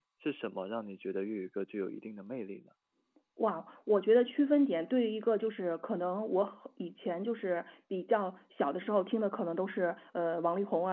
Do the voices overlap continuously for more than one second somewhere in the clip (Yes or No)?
No